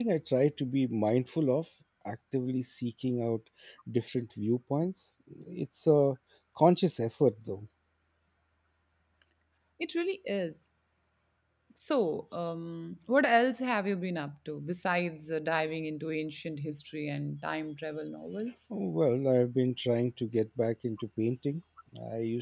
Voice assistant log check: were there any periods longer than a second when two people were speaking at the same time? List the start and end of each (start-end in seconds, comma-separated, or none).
none